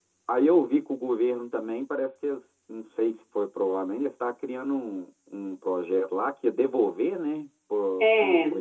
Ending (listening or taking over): taking over